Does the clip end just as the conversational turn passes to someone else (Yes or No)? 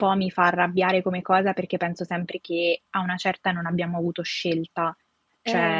No